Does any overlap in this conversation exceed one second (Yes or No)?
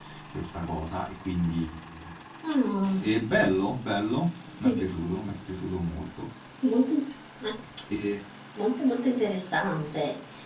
No